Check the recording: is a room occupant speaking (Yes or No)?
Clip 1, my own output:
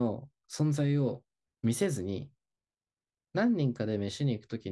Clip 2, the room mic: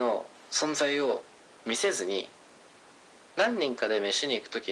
No